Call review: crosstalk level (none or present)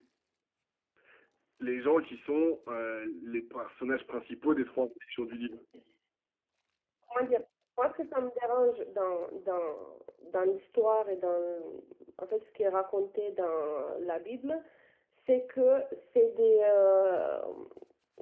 none